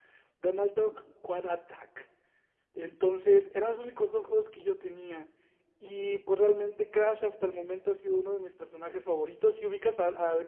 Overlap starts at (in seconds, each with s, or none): none